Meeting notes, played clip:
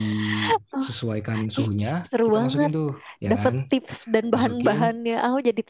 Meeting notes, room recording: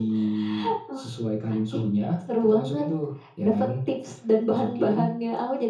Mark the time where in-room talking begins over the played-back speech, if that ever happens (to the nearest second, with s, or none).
none